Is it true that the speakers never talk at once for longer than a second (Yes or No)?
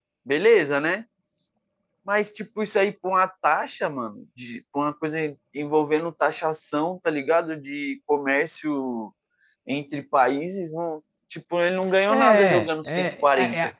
No